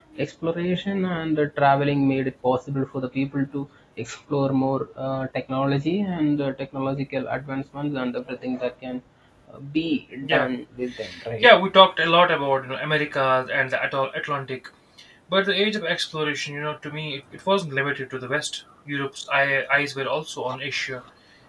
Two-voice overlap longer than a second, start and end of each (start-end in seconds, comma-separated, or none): none